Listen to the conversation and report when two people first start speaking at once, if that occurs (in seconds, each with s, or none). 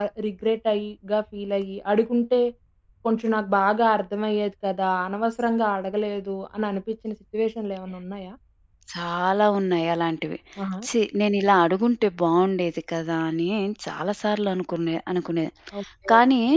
none